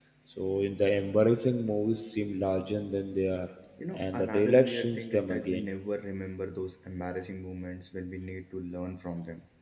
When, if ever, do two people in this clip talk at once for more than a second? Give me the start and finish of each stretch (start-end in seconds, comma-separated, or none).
3.9-5.6